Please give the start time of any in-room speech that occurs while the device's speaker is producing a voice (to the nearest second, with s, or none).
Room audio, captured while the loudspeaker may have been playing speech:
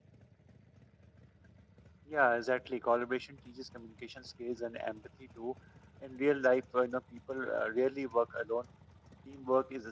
2 s